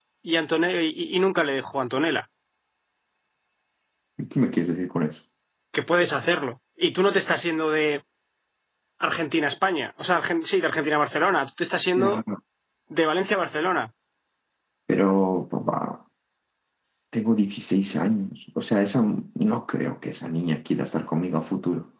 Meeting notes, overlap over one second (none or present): none